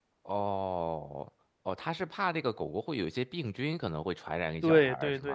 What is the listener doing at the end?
taking over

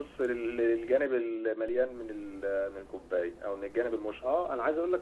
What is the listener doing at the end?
taking over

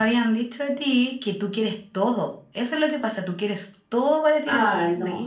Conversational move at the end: taking over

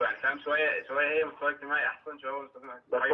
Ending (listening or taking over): taking over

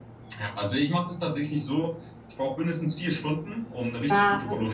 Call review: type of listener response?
listening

